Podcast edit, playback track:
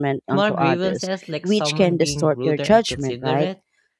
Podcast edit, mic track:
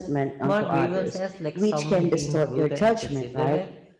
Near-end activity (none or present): none